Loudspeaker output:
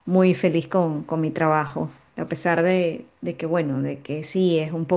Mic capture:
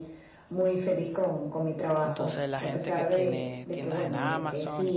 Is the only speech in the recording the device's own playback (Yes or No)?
No